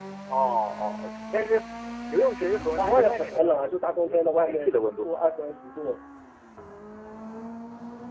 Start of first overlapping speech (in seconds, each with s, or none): 2.8 s